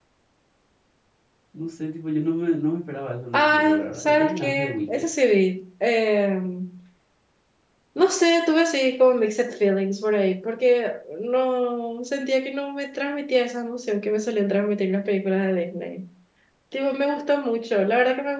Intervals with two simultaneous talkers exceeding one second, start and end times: 3.3-5.0

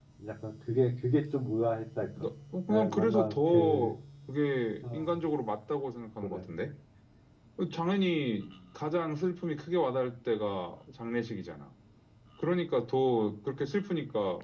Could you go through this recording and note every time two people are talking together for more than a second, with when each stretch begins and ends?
2.7-3.9

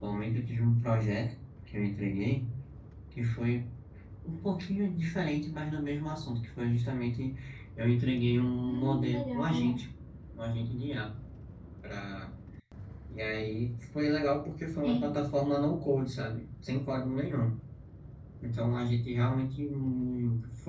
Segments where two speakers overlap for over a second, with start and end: 8.6-9.8

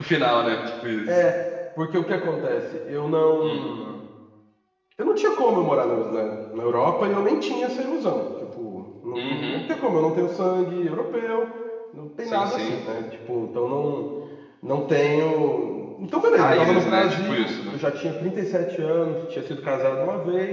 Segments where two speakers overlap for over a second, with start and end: 16.4-17.7

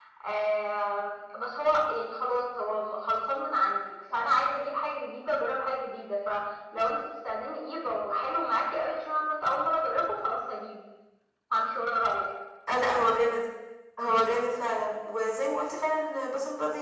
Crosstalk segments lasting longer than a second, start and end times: none

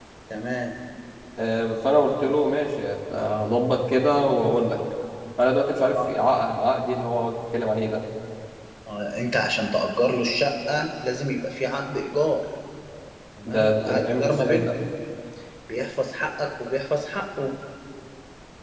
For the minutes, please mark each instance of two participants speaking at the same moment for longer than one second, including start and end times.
13.5-14.8

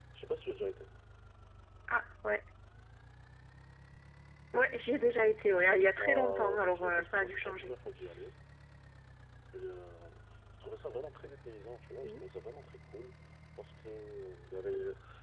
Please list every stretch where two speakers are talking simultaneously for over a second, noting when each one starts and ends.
6.0-7.7

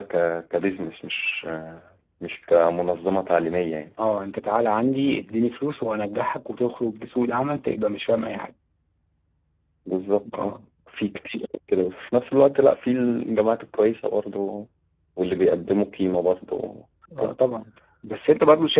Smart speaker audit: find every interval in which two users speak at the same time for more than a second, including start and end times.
none

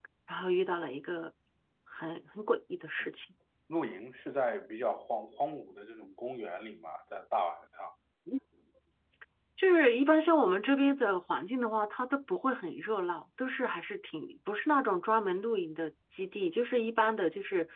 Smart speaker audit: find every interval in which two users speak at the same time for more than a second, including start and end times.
none

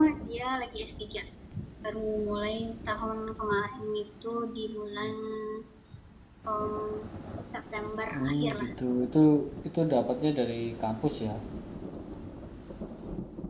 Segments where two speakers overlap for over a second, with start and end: none

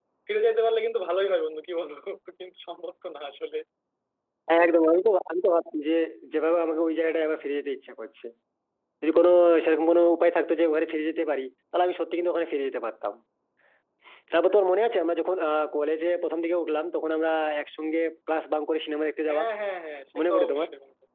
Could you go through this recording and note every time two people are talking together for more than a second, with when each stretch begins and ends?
none

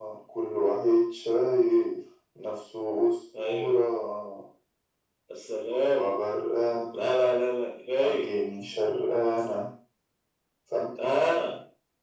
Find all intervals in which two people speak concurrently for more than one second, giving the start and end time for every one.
none

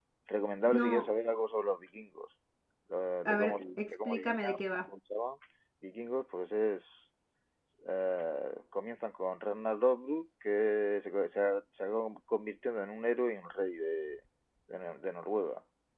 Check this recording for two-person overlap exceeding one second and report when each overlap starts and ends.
3.2-4.6

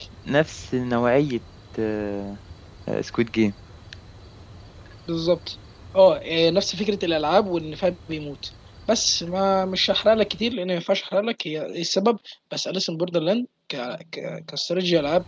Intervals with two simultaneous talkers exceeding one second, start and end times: none

